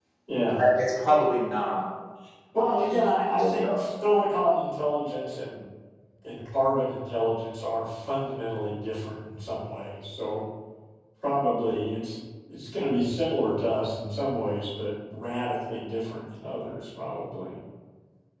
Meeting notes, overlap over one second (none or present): present